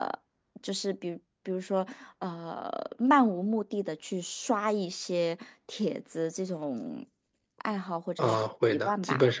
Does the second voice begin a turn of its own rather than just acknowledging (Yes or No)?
Yes